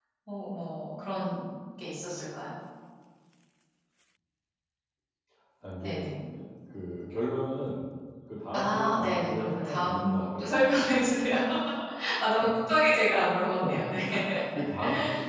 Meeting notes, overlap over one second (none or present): present